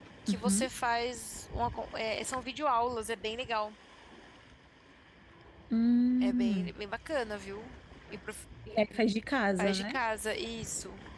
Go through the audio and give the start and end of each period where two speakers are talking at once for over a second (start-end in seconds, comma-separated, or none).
none